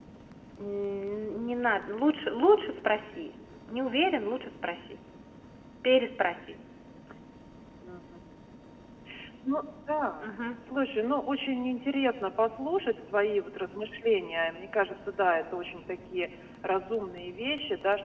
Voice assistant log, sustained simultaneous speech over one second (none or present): none